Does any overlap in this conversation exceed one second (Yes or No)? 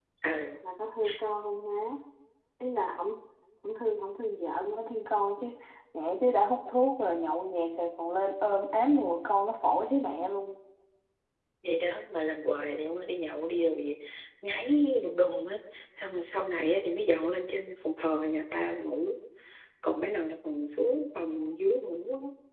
No